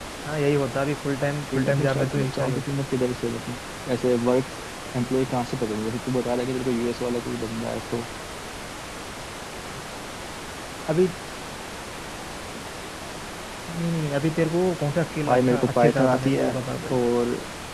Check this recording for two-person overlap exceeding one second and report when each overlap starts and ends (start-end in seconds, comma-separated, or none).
1.2-2.6, 15.3-16.5